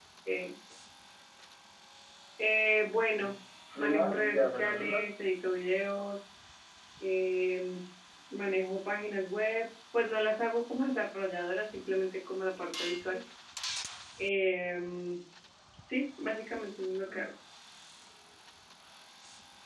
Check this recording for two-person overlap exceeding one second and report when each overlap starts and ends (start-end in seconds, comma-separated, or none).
3.8-5.1